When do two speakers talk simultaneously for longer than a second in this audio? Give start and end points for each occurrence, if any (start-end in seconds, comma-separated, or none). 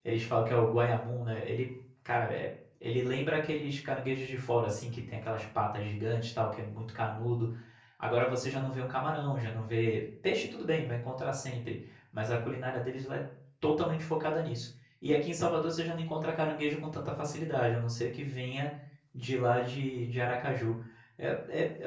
none